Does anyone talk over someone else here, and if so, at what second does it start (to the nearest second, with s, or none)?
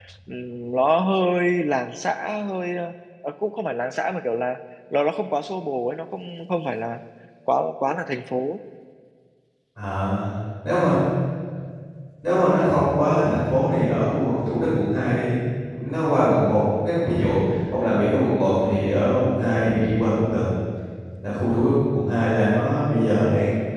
none